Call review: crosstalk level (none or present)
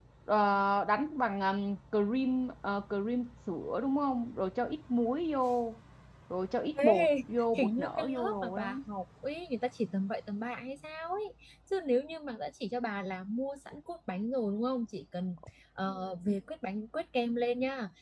present